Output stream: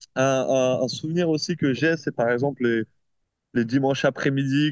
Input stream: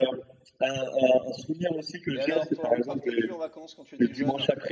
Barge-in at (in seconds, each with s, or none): 2.1 s